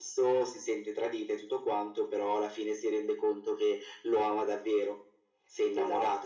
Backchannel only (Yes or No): No